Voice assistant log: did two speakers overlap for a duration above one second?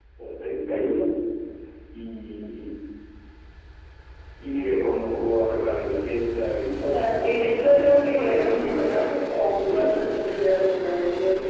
Yes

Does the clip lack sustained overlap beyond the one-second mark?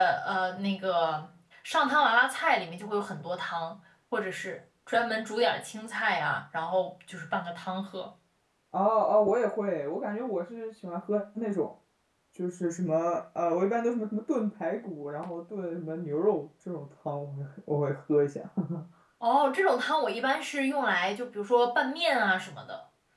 Yes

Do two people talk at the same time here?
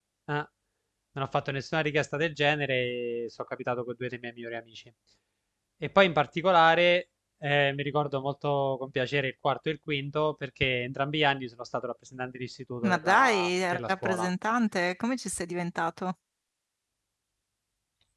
Yes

